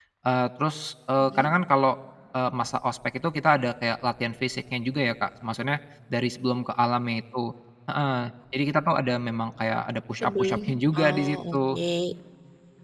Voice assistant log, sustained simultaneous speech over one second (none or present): present